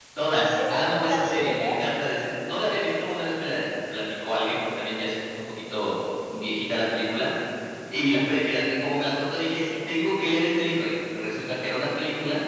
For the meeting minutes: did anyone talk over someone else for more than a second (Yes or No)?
Yes